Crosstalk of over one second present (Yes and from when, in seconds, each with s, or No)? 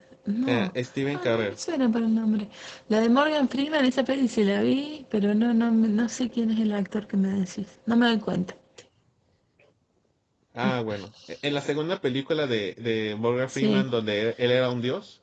No